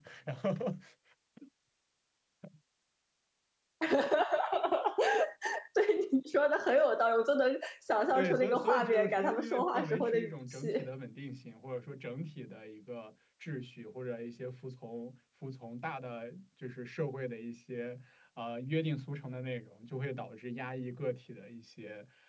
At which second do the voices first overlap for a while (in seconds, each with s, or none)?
8.1 s